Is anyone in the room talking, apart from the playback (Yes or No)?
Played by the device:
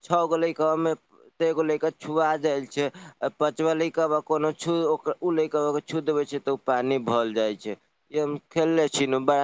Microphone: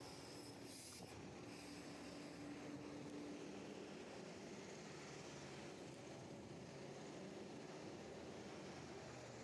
No